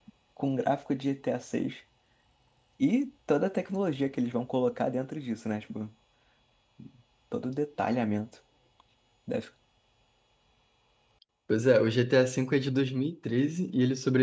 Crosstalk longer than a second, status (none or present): none